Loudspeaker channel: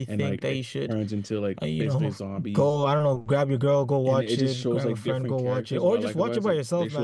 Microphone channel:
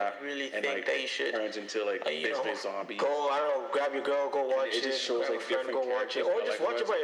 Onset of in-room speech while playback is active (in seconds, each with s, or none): none